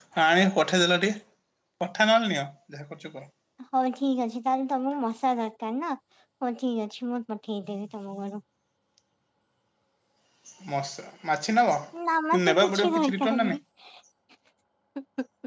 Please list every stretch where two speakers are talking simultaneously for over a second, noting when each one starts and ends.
12.3-13.6

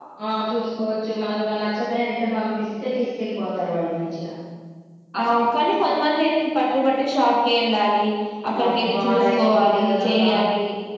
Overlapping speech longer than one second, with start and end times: 8.7-10.3

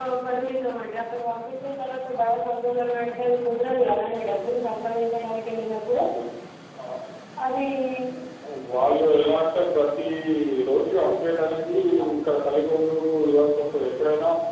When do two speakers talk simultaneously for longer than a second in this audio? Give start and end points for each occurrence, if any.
none

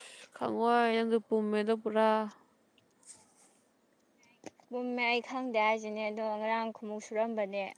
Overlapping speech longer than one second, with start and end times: none

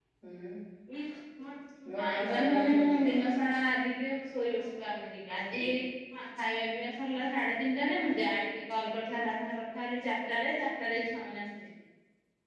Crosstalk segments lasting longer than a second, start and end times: 2.0-3.3

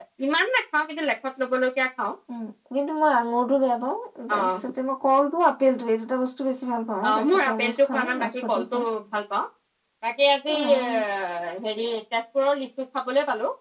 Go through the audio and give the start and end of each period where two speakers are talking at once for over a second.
7.1-8.8

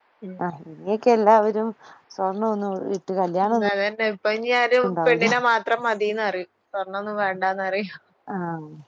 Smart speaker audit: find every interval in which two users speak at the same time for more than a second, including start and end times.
none

